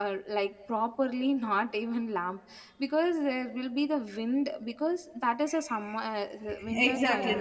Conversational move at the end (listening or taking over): taking over